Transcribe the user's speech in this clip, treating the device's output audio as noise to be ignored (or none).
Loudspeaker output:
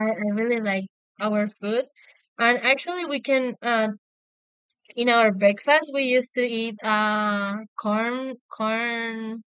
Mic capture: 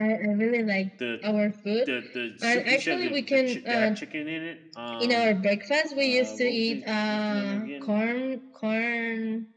the the the soup you said the the chi- they had chicken in it. Um, uh, what was it? What's the name again?